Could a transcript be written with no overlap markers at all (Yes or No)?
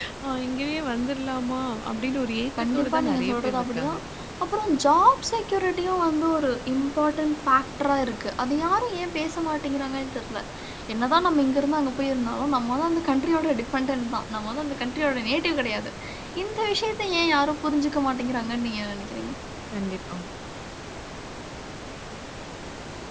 No